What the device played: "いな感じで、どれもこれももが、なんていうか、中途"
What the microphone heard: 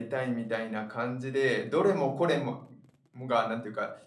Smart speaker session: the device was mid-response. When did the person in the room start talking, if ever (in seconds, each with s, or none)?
none